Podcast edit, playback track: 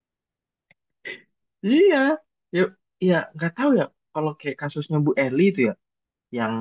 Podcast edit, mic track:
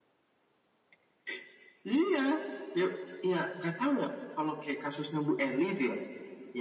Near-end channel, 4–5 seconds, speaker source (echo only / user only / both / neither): echo only